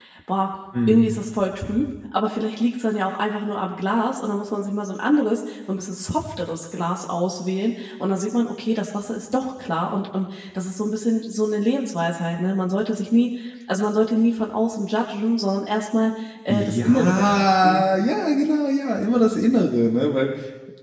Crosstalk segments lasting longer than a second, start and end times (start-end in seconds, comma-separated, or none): 16.5-17.8